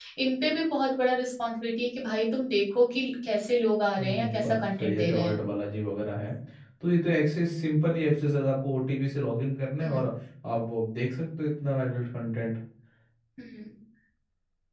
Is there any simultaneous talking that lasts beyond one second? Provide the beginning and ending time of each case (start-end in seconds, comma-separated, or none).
4.0-5.4